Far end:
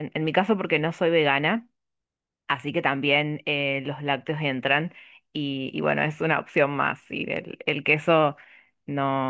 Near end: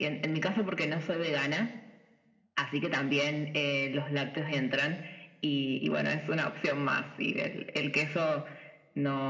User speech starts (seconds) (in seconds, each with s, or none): none